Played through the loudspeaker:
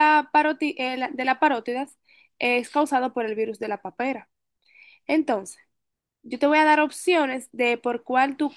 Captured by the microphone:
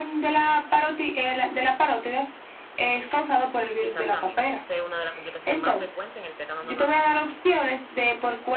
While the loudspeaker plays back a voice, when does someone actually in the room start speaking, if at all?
4 s

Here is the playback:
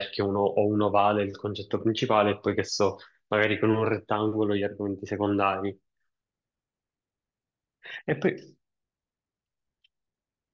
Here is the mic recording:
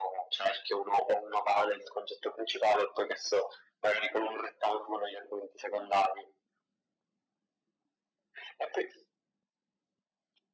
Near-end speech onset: none

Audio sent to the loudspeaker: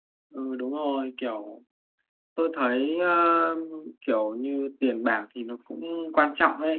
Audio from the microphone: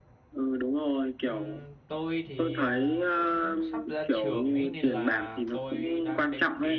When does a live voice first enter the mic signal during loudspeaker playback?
1 s

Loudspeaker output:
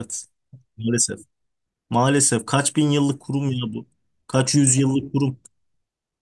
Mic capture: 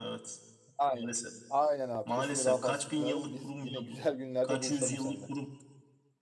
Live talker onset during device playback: 1 s

